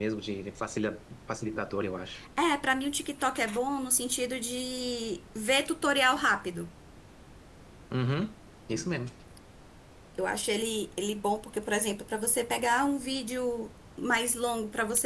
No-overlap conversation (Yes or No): Yes